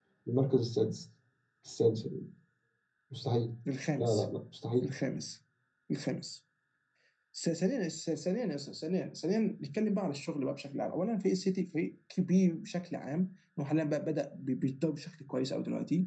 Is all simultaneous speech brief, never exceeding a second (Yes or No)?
Yes